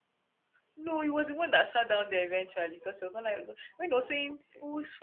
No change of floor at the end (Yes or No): Yes